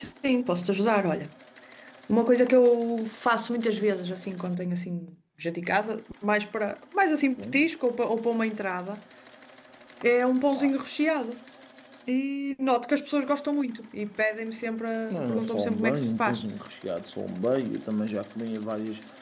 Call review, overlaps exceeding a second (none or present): present